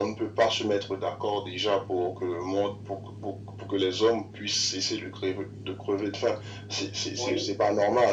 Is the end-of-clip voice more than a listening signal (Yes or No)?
No